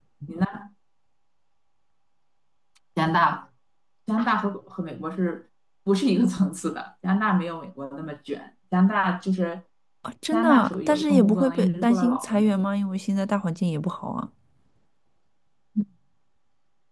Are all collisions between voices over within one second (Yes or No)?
No